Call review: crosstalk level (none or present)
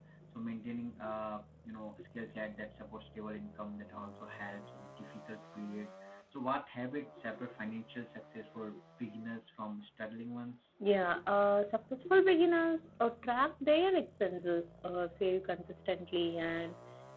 none